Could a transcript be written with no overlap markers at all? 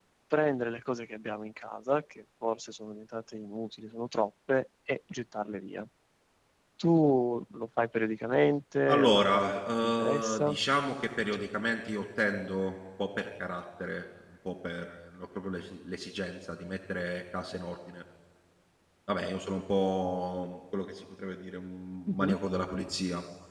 No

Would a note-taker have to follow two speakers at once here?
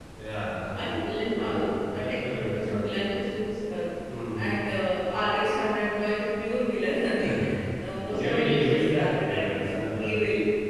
Yes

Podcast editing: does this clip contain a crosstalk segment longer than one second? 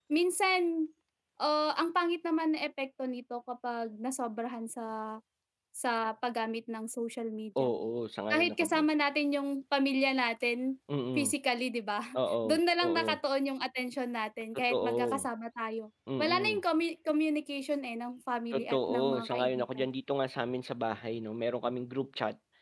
Yes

